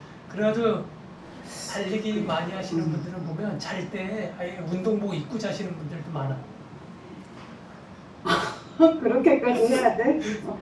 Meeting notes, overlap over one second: none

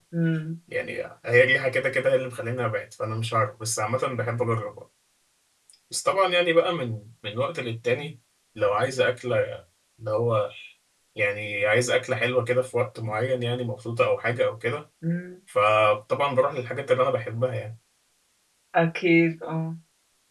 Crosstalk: none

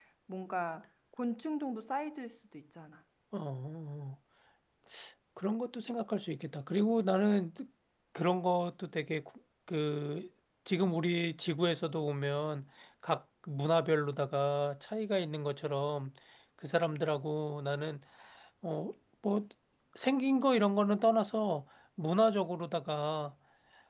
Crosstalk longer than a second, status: none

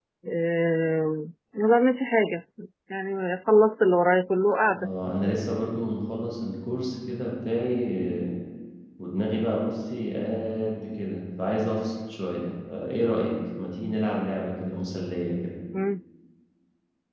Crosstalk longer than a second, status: none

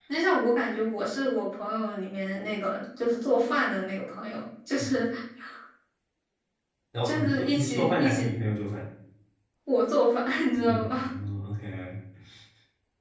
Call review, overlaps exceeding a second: present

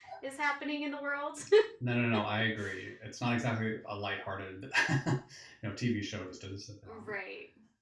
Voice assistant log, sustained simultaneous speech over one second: none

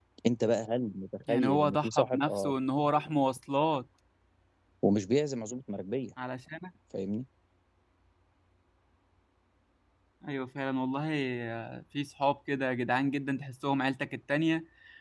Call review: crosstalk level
present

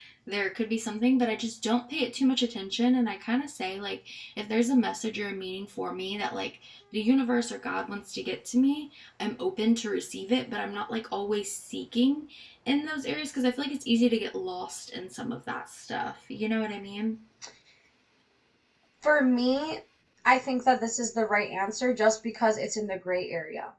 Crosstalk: none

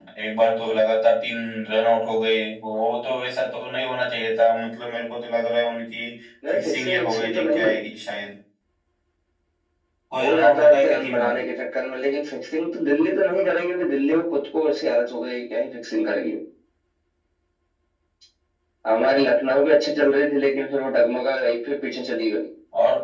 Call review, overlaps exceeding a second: present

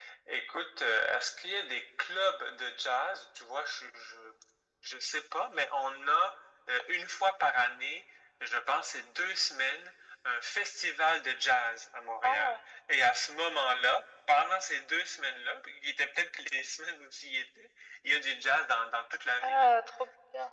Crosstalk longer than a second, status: none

